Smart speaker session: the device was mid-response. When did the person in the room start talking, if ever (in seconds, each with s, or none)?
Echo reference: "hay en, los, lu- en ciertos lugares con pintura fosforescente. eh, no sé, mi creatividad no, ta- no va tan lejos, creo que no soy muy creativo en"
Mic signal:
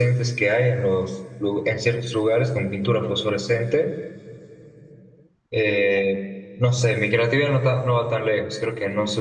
none